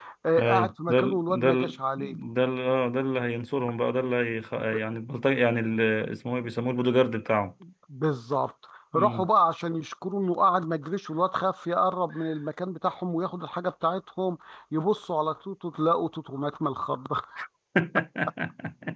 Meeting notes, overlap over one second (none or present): present